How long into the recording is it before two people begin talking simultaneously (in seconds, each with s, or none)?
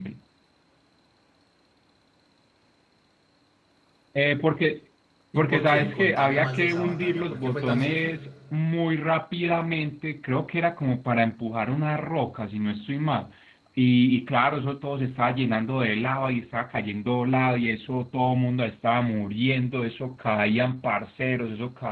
5.4 s